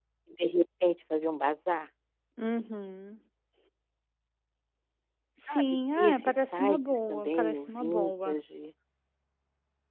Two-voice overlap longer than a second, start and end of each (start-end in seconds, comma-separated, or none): 5.5-8.4